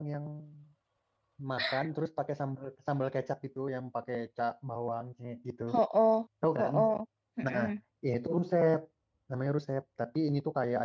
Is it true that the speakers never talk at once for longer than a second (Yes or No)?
Yes